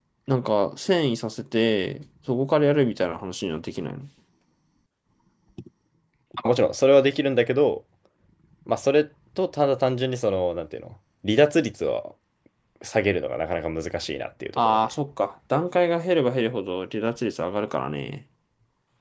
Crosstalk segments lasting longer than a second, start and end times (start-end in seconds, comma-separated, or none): none